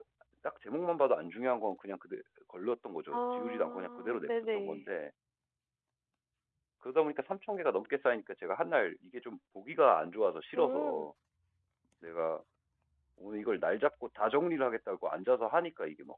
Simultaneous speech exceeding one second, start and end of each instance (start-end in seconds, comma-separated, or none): 3.1-4.8